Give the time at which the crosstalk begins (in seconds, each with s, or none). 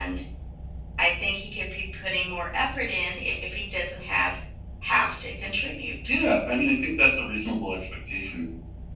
none